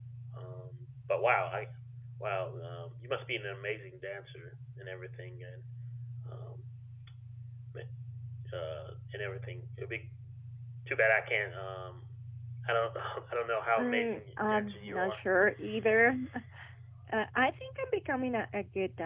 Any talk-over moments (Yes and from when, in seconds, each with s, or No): Yes, from 13.8 s